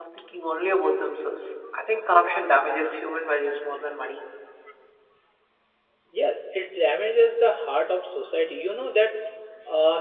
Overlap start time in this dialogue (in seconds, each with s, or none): none